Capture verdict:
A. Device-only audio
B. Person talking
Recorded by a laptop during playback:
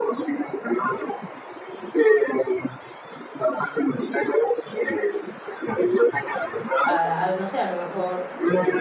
B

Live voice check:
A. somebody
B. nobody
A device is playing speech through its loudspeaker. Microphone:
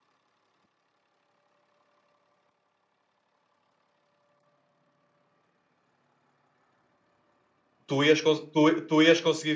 A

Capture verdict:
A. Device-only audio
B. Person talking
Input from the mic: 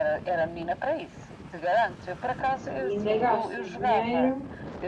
B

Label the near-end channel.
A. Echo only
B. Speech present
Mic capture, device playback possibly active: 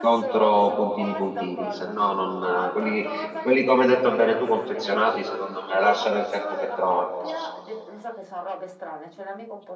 B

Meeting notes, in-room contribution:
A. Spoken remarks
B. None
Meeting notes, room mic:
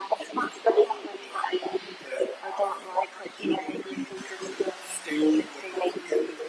B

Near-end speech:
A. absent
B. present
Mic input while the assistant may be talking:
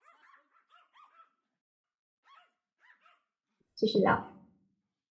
B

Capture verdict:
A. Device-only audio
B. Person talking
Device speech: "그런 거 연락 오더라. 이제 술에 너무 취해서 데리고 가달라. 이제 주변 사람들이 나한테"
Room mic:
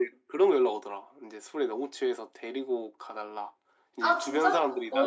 B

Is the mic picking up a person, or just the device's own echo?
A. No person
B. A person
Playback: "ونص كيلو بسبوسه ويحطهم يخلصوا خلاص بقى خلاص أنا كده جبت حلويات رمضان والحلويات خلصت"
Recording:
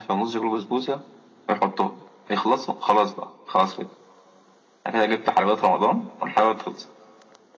A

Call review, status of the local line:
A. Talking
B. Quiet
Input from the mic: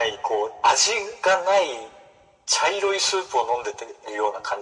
B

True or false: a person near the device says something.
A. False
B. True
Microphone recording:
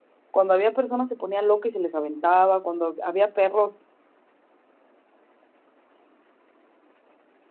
B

